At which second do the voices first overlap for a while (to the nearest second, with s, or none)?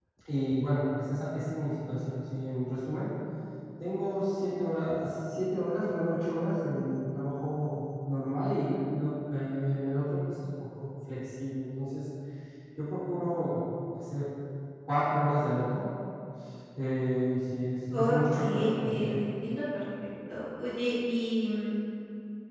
18 s